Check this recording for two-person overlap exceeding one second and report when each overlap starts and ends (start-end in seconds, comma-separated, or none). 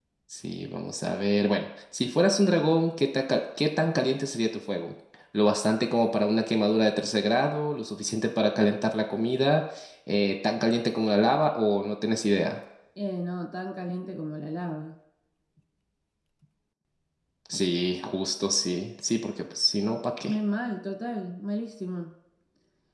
none